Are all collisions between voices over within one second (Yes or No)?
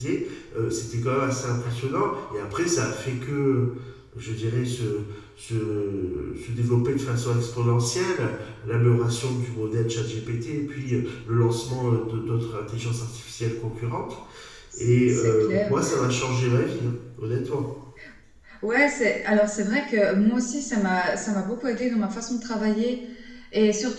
No